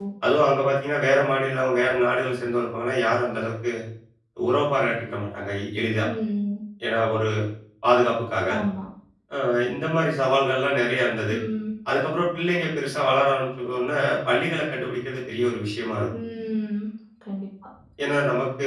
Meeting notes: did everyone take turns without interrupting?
Yes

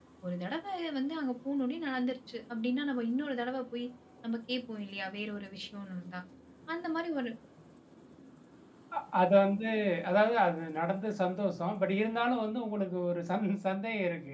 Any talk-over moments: No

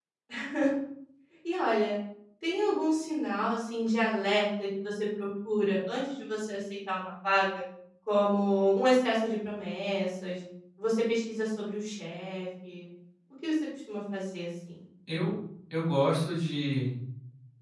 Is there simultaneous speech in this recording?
No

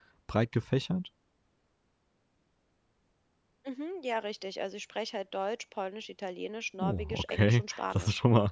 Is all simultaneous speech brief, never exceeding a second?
No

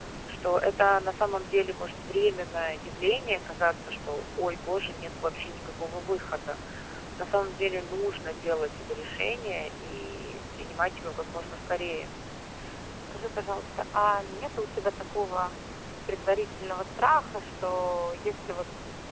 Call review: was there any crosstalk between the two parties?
No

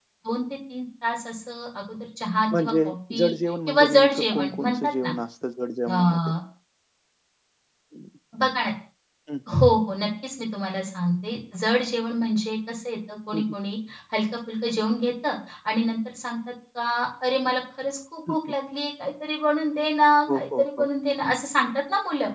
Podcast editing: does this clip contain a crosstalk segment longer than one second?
Yes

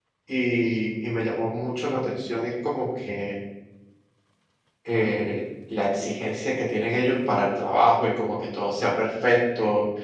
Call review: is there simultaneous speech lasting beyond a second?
No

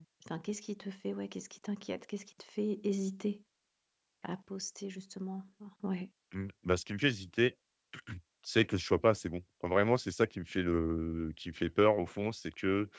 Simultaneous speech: No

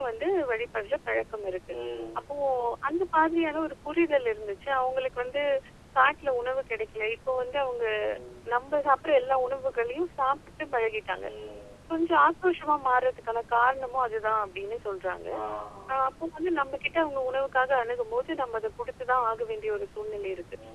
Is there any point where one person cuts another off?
No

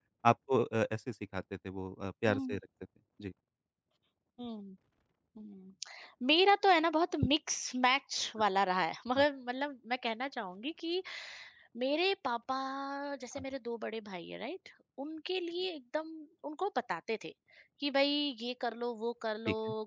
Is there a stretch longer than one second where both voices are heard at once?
No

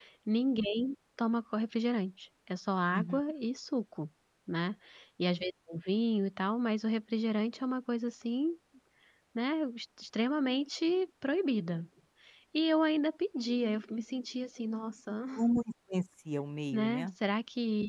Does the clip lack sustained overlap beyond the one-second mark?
Yes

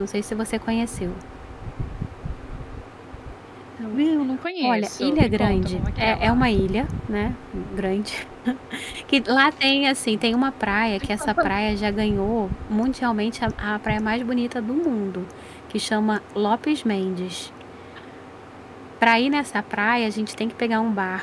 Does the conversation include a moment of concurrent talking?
Yes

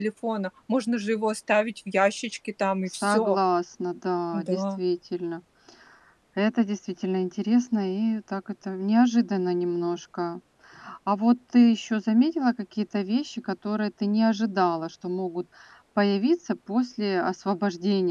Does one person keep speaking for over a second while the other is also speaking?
No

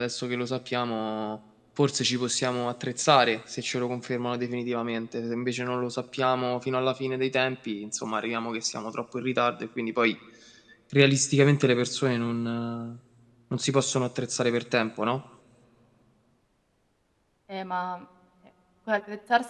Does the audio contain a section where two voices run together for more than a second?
No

